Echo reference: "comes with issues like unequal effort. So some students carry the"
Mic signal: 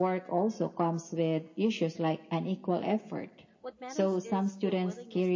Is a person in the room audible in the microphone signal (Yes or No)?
Yes